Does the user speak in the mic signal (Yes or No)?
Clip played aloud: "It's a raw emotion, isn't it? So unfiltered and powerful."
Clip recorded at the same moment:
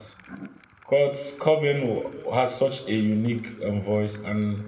Yes